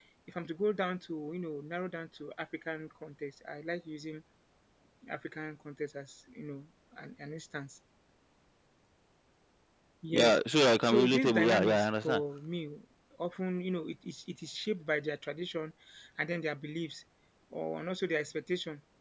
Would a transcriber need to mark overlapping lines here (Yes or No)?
Yes